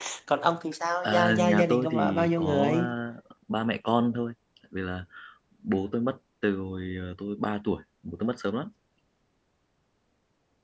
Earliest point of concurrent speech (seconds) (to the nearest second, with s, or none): 1 s